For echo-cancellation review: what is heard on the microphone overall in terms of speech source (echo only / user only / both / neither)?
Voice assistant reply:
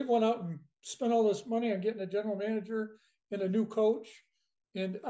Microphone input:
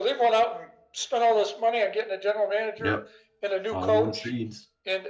both